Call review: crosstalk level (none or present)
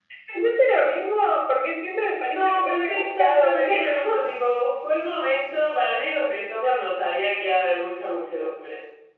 present